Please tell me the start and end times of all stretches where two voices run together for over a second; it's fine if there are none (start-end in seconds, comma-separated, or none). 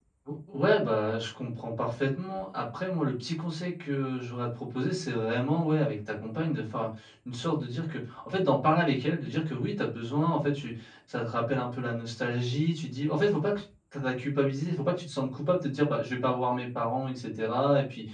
none